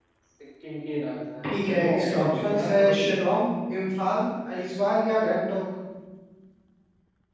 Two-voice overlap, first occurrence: 1.4 s

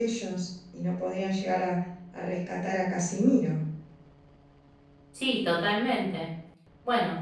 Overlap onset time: none

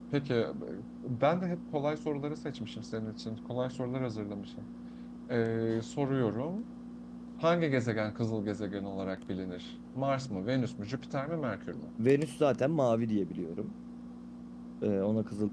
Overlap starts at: none

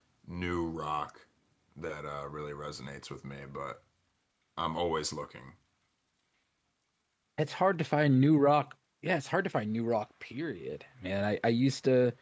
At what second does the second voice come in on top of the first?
none

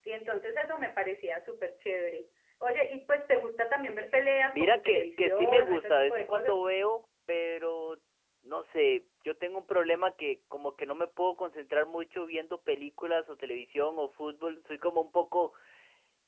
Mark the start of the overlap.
4.5 s

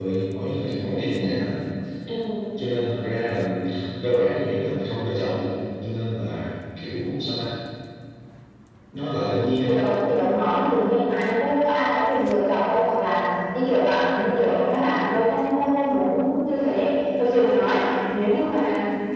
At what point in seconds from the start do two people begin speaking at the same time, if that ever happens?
none

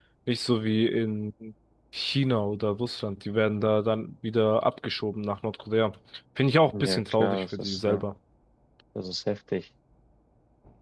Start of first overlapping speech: 6.8 s

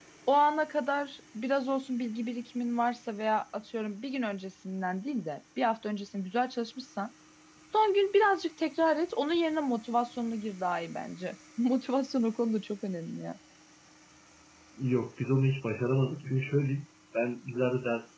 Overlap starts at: none

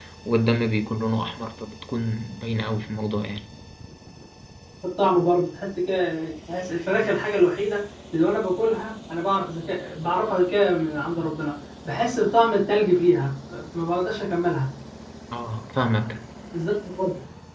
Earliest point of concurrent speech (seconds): none

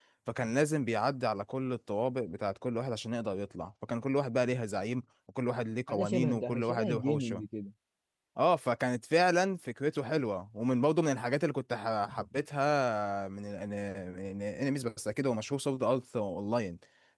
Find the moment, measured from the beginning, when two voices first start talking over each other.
5.9 s

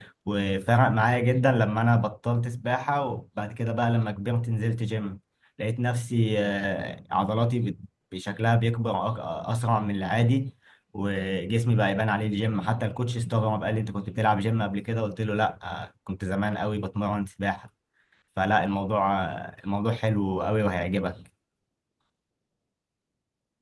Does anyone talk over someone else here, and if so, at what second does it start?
none

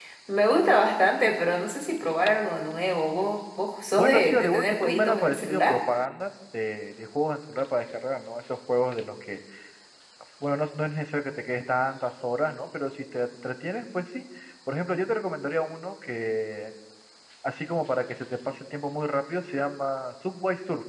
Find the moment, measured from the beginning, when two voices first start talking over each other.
4.0 s

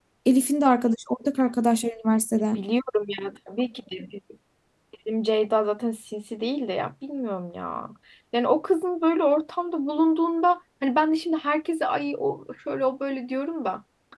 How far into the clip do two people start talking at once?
none

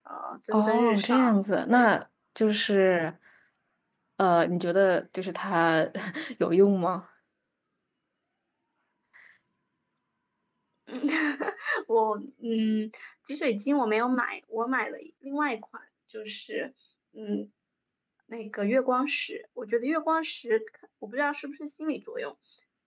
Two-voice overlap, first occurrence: 0.5 s

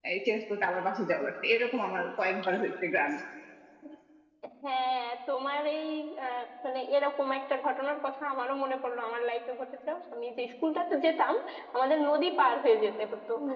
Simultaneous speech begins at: none

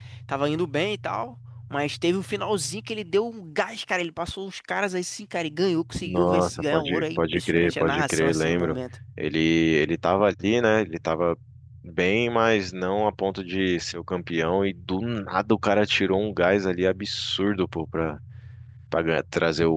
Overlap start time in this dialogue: 6.0 s

